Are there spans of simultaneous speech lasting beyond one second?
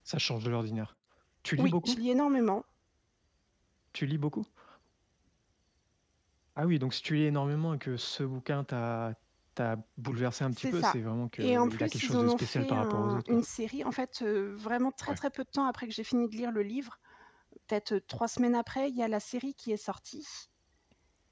Yes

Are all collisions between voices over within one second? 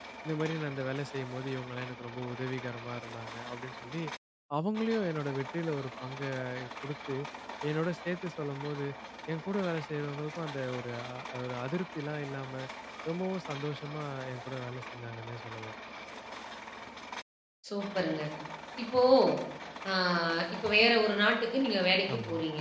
Yes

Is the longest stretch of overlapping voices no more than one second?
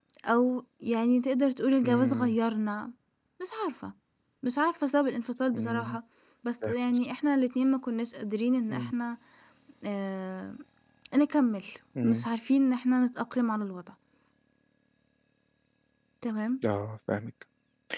Yes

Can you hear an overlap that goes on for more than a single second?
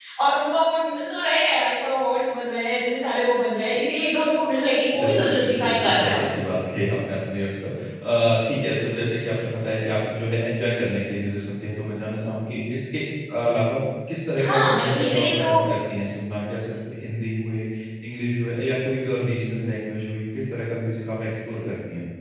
Yes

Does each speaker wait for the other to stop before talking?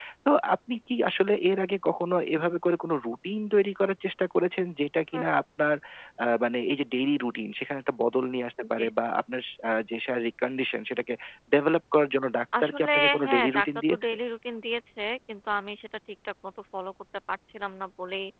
No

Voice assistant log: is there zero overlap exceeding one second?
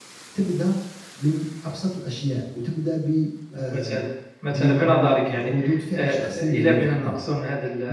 No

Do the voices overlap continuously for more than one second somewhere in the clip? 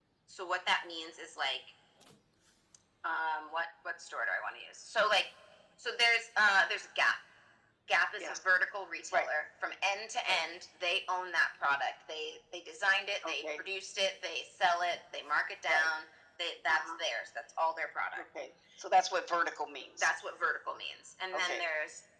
No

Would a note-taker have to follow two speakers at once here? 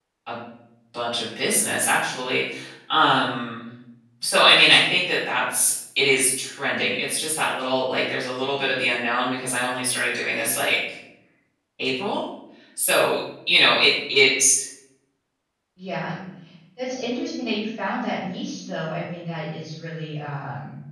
No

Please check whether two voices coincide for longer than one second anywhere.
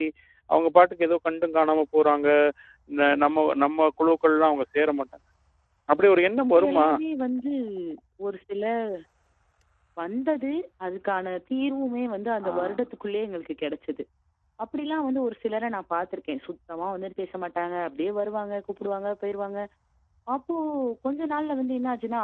No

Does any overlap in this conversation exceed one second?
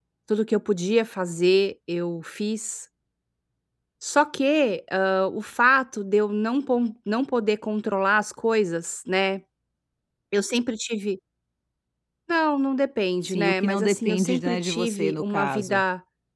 Yes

